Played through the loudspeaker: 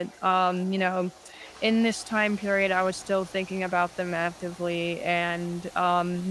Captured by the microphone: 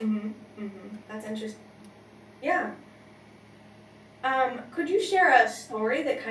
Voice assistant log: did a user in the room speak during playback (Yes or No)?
Yes